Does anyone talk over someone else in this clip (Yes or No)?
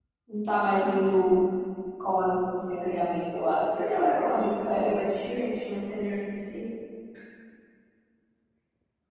Yes